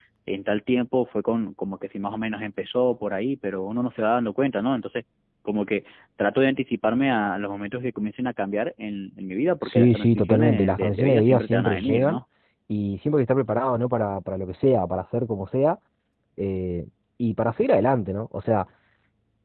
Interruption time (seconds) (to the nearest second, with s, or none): 10 s